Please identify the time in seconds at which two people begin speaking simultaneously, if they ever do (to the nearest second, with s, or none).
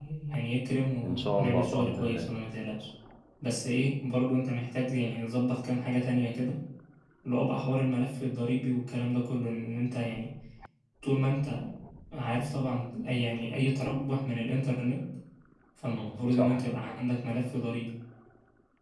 1 s